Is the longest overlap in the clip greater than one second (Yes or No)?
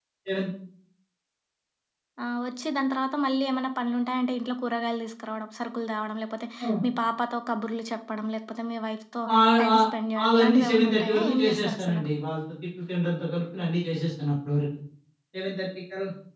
Yes